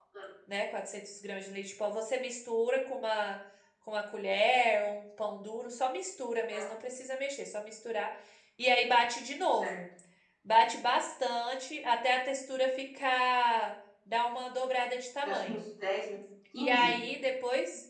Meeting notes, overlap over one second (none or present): none